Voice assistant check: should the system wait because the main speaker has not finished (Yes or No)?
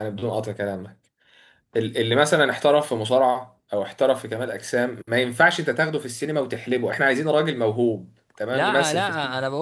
No